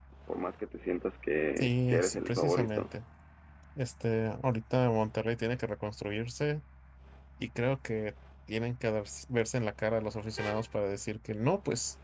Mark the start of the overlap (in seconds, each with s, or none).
1.6 s